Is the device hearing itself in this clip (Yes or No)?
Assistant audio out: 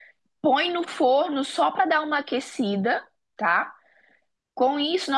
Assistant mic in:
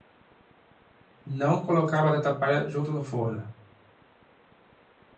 No